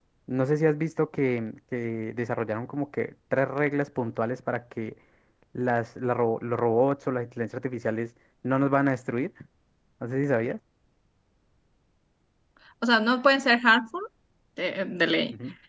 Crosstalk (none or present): none